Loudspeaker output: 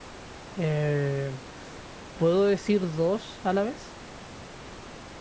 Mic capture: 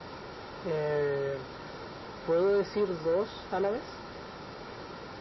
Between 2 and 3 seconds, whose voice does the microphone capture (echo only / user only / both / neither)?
echo only